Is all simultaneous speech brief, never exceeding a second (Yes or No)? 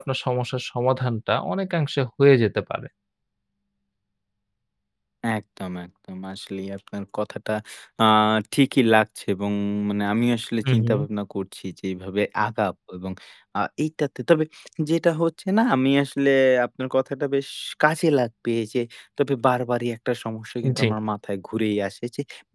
Yes